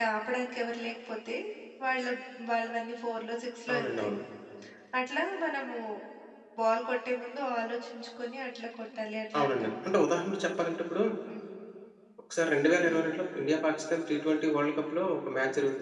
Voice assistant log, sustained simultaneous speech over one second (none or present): none